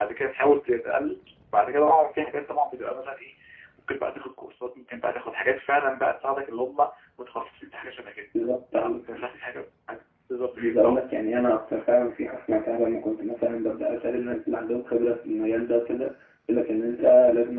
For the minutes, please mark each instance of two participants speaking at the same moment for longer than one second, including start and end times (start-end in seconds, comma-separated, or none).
none